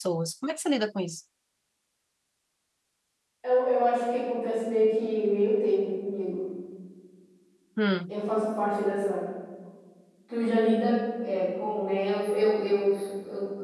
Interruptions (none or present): none